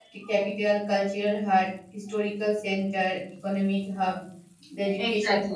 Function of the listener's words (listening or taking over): listening